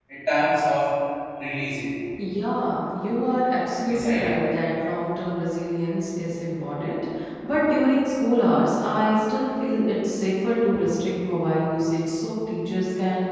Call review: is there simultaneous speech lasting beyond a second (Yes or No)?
No